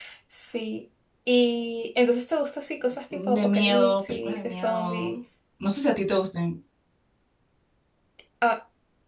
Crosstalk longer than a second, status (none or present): present